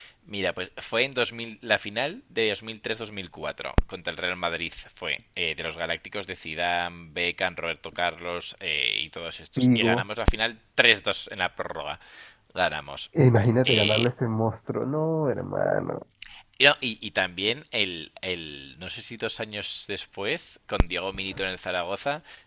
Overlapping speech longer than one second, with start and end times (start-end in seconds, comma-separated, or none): none